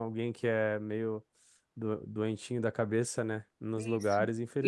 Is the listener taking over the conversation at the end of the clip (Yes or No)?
Yes